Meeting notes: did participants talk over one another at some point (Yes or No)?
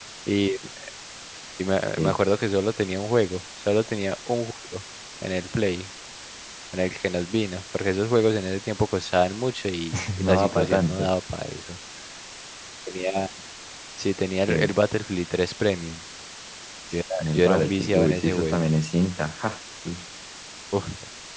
Yes